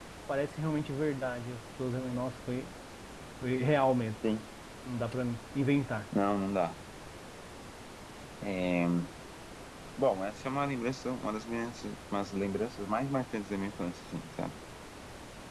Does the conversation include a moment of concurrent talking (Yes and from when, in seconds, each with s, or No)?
No